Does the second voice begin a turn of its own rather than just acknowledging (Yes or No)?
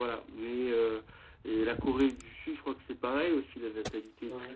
No